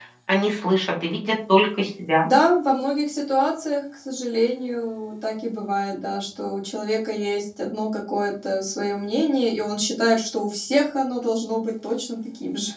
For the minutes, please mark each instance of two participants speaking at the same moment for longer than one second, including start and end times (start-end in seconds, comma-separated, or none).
none